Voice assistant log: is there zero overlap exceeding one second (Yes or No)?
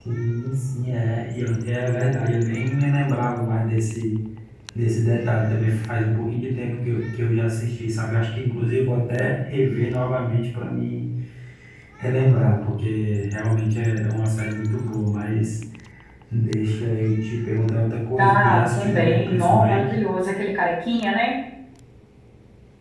No